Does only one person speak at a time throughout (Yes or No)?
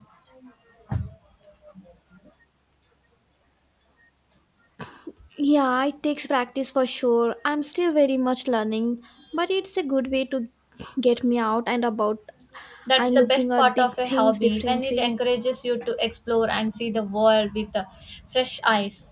No